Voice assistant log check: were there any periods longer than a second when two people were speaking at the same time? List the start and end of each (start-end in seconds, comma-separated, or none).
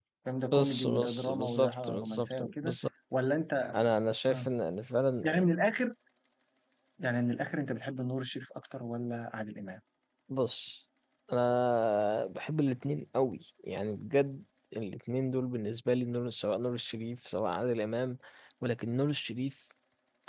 0.5-2.8